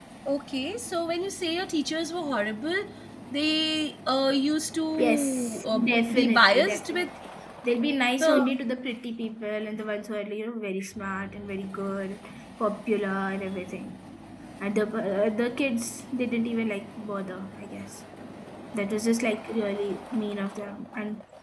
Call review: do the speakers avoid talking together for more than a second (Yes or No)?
No